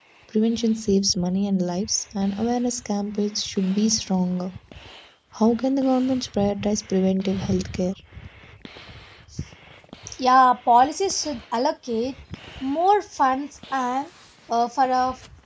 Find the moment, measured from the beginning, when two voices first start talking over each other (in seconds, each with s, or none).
none